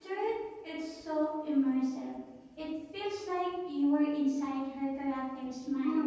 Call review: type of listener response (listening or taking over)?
taking over